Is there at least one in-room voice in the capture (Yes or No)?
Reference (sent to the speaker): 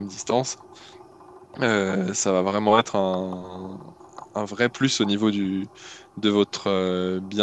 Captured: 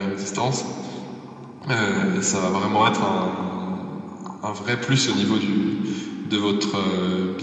No